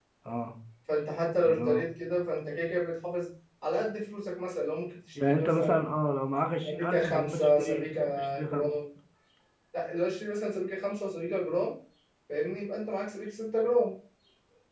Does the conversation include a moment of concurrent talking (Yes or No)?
Yes